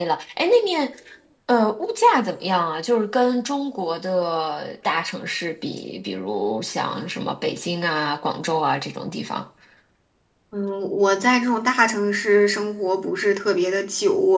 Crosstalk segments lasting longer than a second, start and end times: none

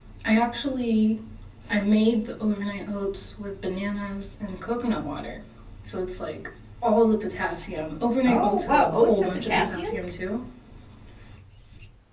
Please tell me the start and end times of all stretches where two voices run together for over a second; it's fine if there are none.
8.2-9.9

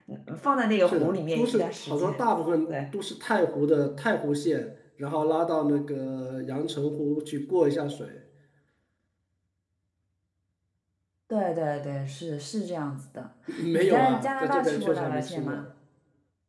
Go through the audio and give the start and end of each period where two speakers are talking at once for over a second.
0.9-2.2, 13.7-15.6

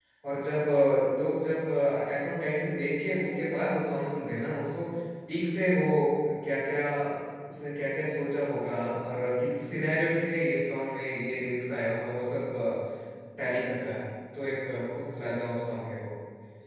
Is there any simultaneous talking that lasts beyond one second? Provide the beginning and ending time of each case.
none

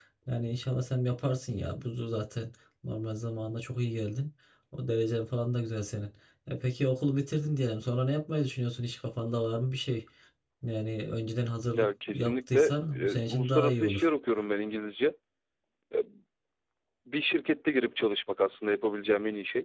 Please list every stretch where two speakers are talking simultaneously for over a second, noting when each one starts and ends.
11.8-14.1

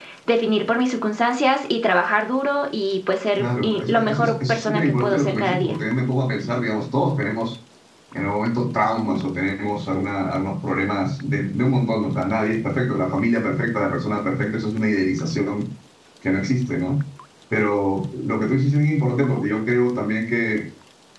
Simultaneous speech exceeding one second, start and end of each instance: 3.4-5.7

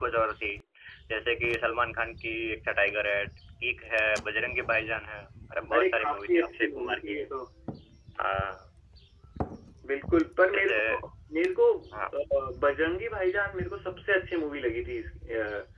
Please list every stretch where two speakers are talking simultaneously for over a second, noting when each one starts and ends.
5.8-7.2

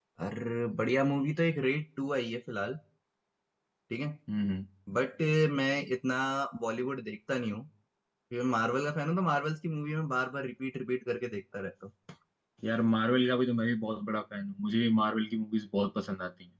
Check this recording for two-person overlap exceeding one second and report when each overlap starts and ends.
none

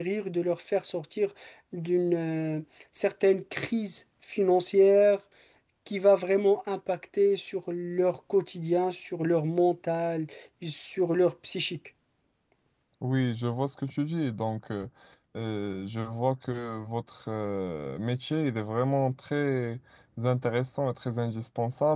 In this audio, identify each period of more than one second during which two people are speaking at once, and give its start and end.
none

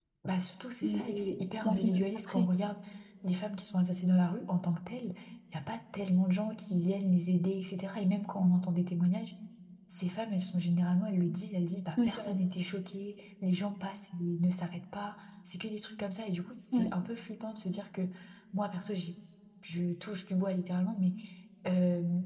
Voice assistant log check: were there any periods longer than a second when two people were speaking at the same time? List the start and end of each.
0.8-2.5

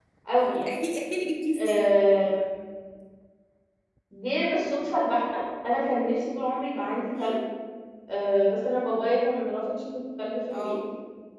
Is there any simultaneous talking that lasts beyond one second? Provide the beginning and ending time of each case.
none

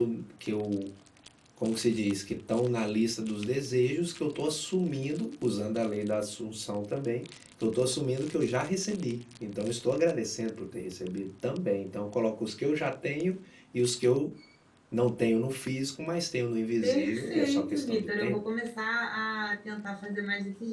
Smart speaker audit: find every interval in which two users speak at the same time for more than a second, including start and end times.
16.8-18.4

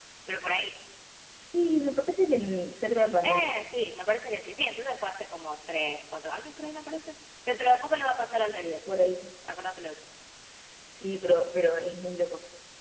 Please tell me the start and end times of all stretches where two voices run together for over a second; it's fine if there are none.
none

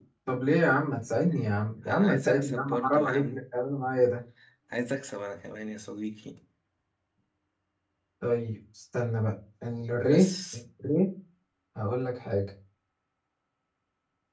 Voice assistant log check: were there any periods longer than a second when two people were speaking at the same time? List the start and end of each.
1.9-3.4

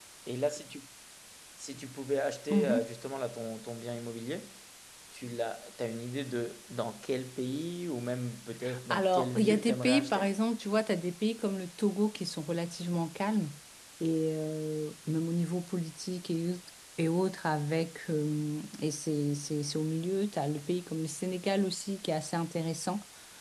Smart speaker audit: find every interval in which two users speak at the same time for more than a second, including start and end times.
8.9-10.2

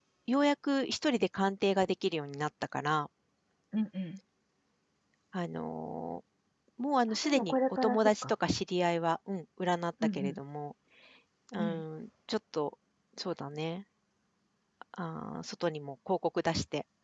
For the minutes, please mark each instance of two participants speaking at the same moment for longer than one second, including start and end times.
7.1-8.3

